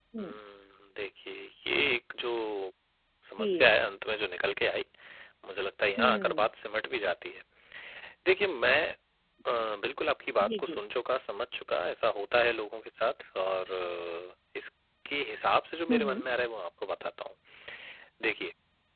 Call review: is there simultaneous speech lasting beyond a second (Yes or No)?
No